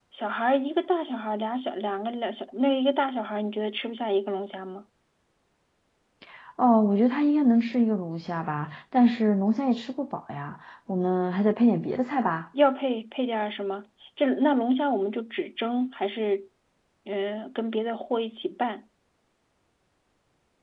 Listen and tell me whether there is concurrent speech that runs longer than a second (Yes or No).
No